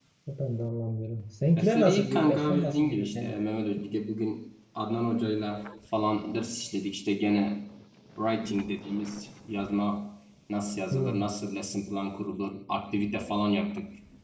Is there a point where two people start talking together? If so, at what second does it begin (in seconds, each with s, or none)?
1.6 s